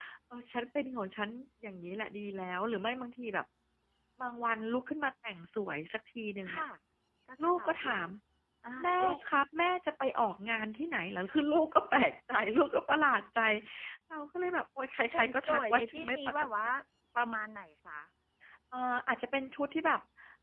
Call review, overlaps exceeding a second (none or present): present